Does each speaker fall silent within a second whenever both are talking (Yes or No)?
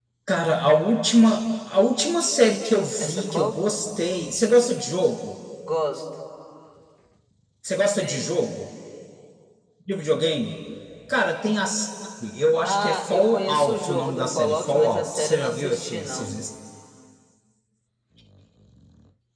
No